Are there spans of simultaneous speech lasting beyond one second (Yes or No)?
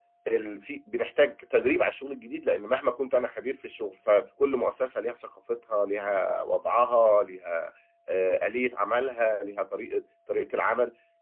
No